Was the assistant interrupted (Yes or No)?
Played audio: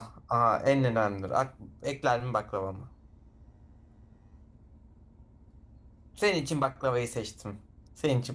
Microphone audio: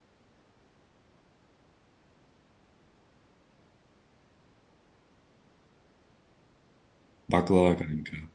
Yes